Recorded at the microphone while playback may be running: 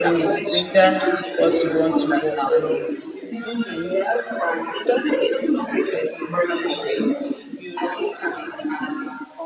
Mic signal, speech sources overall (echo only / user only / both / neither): both